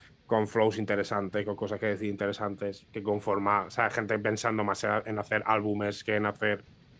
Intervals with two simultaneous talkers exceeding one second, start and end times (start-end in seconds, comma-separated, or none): none